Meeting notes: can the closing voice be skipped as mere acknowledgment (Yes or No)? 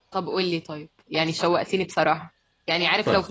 Yes